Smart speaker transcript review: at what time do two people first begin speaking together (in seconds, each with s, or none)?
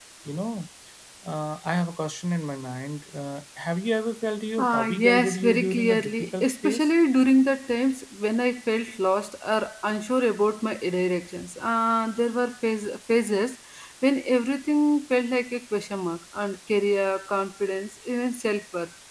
4.6 s